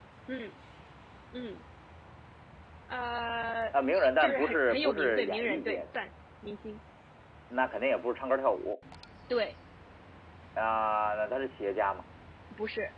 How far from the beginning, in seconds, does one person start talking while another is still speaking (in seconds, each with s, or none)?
4.2 s